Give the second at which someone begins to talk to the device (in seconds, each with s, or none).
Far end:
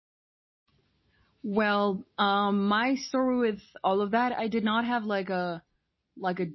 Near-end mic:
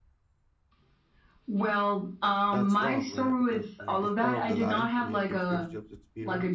2.5 s